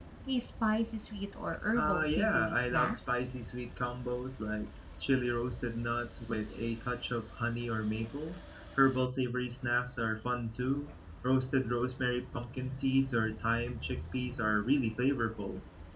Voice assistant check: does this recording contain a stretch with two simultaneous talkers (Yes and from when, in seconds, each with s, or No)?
Yes, from 1.8 s